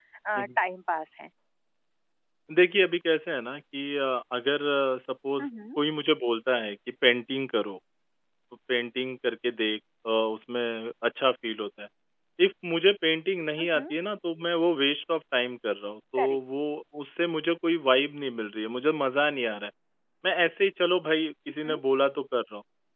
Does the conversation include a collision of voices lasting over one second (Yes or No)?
No